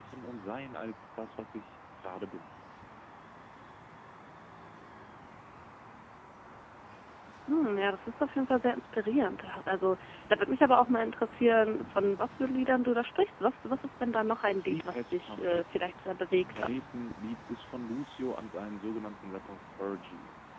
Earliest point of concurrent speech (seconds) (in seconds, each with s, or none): 14.4 s